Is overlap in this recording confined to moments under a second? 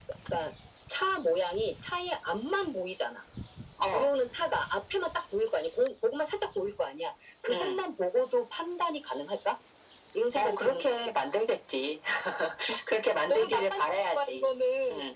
No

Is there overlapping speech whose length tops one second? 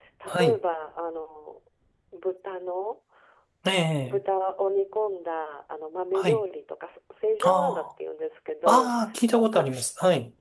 No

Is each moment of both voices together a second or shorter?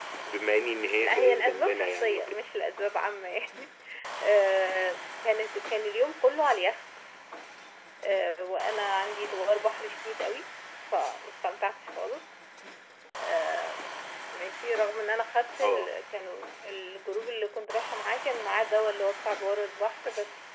No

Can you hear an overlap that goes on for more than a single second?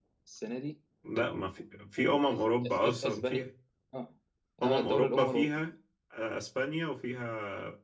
Yes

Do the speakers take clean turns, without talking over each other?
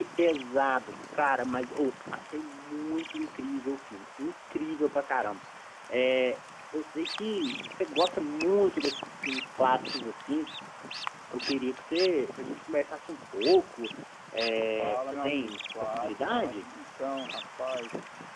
No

